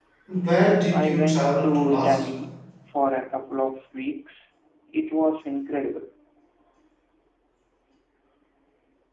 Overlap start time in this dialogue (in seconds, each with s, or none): 0.9 s